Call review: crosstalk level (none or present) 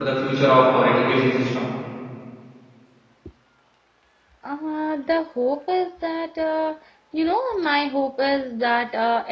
none